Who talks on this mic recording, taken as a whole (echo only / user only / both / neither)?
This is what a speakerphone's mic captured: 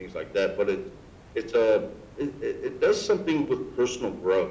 echo only